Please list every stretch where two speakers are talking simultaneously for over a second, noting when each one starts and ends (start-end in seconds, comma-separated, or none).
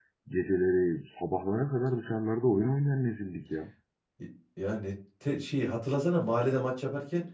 none